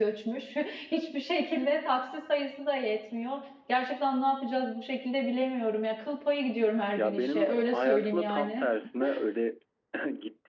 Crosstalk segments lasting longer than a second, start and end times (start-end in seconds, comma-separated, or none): 7.0-8.7